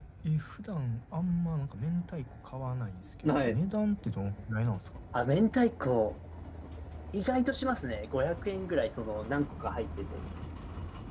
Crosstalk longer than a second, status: none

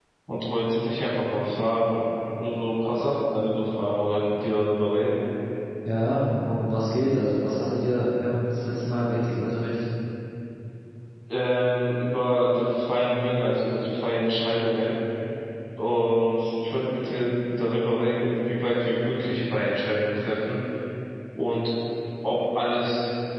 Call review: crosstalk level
none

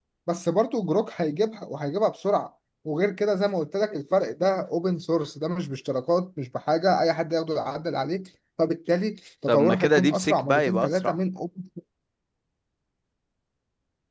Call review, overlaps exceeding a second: present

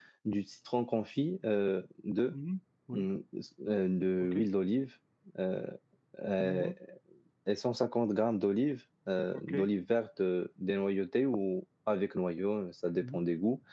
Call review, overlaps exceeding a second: none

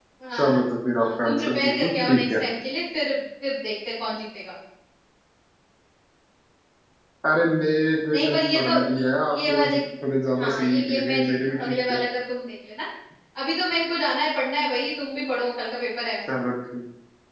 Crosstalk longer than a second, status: present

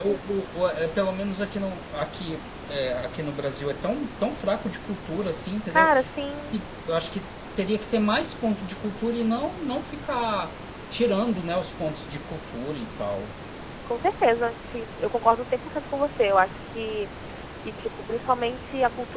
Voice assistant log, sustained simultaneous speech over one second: none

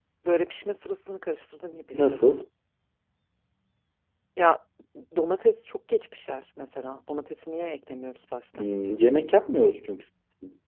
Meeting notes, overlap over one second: none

